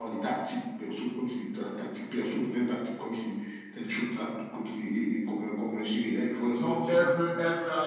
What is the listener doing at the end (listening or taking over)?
taking over